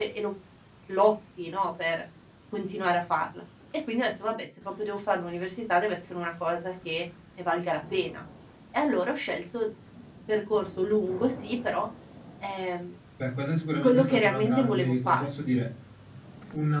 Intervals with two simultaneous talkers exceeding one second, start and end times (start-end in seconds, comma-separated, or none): 13.8-15.3